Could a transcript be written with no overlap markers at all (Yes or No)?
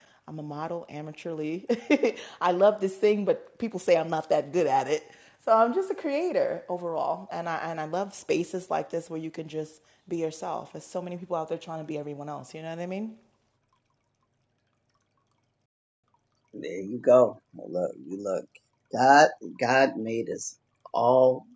Yes